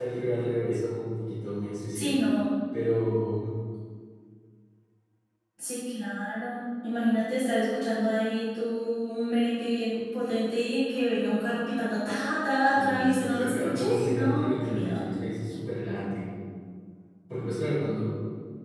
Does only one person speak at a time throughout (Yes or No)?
No